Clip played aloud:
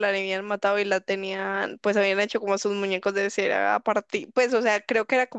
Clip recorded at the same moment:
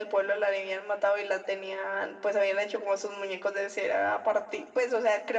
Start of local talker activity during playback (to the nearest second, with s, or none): none